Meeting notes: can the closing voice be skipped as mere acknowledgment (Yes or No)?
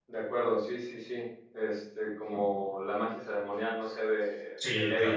No